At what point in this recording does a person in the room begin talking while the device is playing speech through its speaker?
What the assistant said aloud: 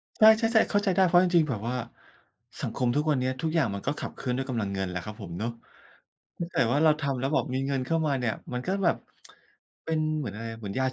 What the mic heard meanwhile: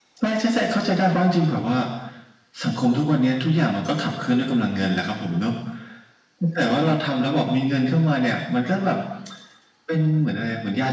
none

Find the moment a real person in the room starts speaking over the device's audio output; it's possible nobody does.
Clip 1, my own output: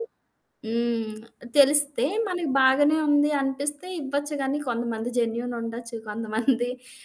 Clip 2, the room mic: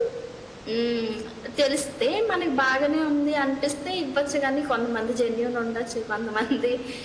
none

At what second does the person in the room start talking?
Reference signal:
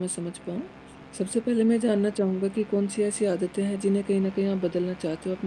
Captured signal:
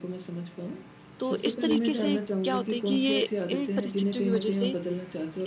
1 s

